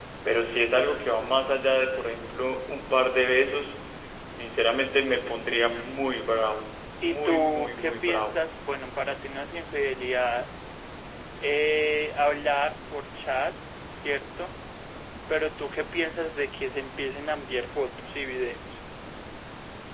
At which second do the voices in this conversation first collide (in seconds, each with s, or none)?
7.0 s